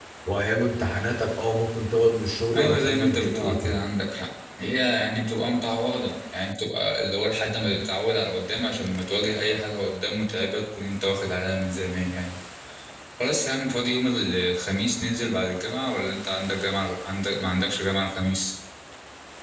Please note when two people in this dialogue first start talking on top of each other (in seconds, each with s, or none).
2.5 s